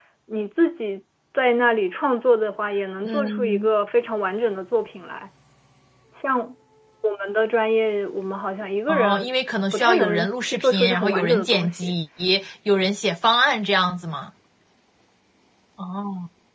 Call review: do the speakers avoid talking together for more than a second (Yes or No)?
No